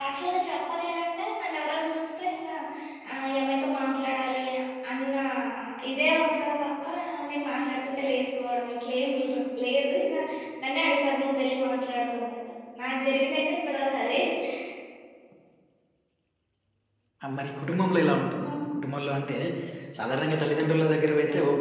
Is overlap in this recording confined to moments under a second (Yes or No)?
Yes